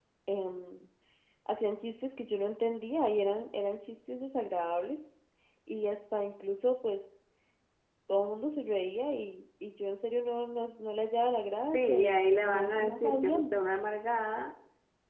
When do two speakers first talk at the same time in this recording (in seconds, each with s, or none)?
11.7 s